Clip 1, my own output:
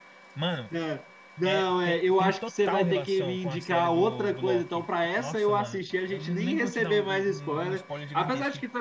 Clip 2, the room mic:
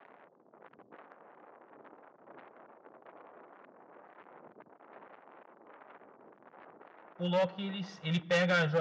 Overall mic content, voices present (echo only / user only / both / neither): user only